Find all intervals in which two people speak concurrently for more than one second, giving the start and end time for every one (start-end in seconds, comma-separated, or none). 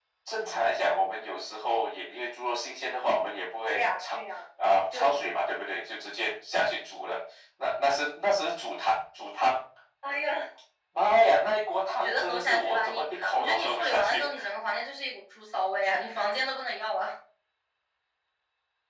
12.0-14.3